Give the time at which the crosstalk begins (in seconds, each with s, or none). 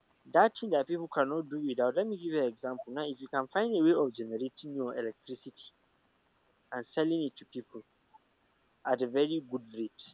none